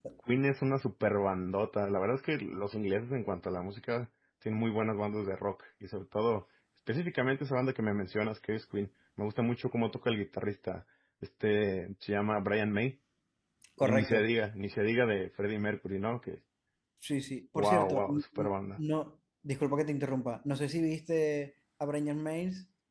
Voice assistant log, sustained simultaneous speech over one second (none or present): present